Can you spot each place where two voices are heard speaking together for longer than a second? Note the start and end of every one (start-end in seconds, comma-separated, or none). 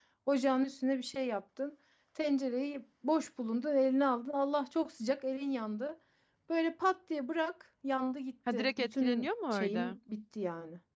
8.5-10.0